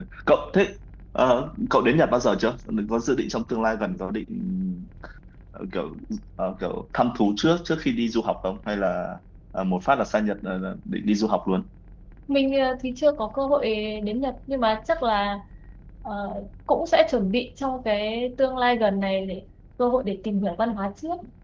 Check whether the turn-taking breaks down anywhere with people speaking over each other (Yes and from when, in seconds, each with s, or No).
No